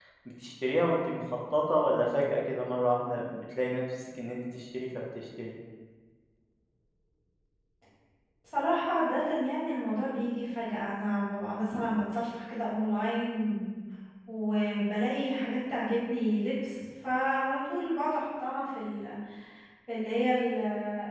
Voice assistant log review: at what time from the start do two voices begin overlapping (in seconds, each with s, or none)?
none